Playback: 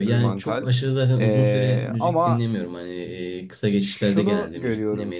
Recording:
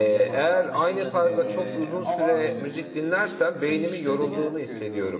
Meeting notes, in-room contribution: present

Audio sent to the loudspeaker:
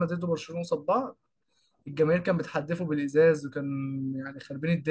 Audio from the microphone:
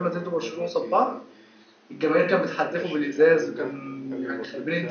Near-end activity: present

